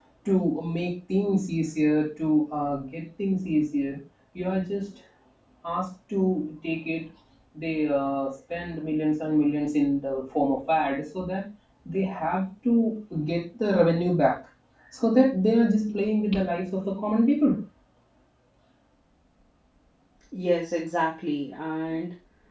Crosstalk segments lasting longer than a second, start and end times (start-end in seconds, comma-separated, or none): none